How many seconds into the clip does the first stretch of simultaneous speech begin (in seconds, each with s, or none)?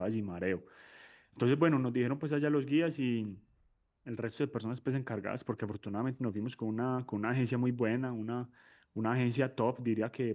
none